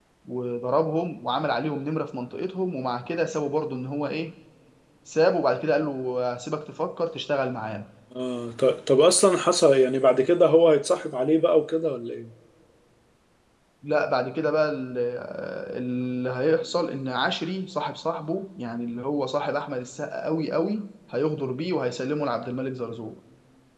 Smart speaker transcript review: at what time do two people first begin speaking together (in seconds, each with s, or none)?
none